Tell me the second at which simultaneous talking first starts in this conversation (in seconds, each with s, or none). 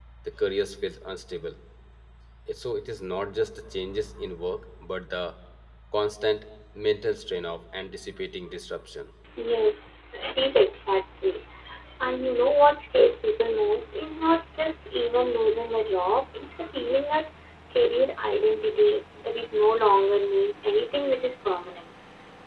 none